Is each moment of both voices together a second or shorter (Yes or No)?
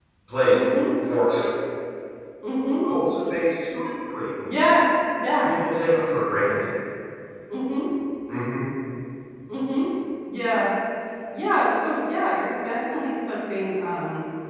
Yes